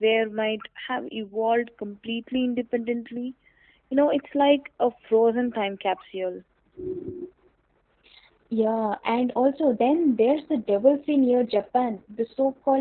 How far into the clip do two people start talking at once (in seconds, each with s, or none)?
none